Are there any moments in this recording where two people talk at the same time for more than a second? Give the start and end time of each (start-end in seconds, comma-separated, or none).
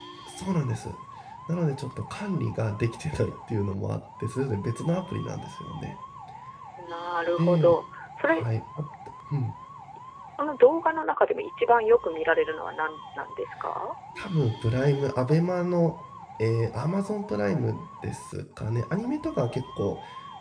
none